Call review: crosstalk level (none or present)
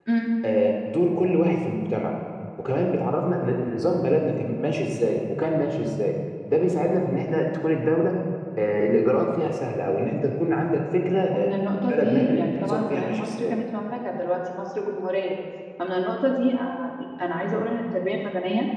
present